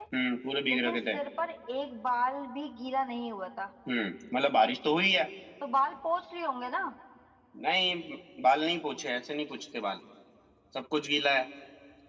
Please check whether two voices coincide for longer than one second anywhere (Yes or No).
No